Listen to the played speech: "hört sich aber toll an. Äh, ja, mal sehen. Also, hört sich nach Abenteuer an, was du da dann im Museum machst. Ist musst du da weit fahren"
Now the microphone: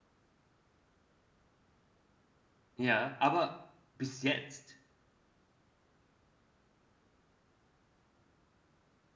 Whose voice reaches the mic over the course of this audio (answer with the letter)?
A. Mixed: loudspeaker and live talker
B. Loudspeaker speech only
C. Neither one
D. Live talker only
D